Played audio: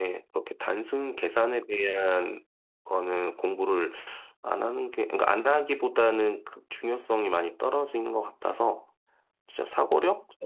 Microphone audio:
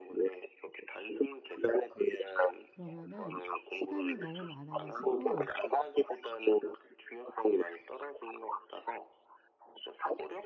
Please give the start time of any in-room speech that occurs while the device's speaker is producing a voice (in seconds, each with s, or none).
2.7 s